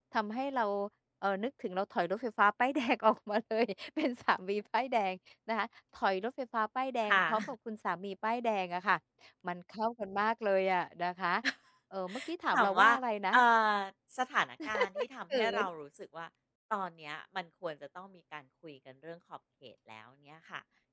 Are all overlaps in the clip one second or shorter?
Yes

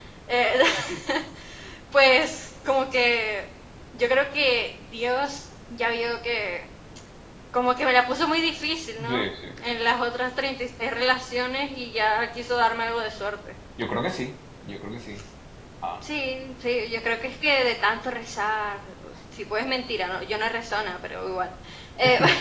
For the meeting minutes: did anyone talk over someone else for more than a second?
No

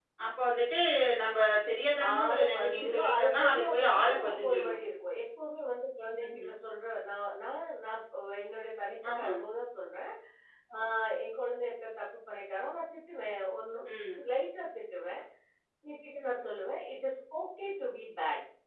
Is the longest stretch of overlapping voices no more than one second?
No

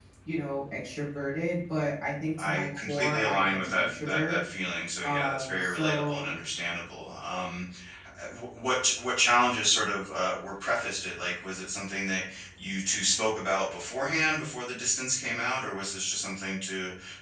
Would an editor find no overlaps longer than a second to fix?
No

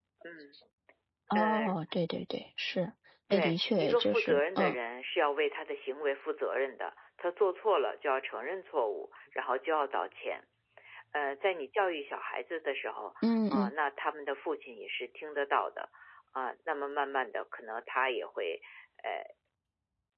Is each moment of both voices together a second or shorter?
No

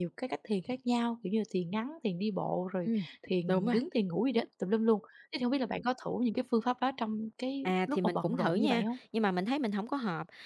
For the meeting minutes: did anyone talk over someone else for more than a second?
Yes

